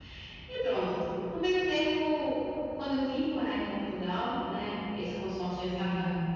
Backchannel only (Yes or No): Yes